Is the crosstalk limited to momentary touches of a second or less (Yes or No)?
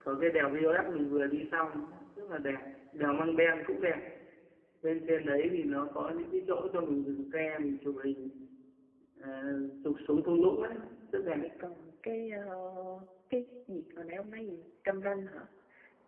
Yes